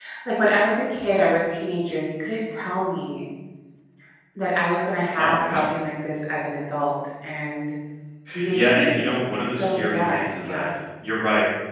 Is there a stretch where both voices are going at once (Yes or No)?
Yes